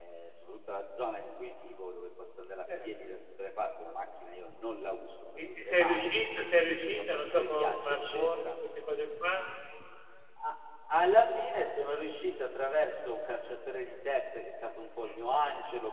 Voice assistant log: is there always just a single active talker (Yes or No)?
No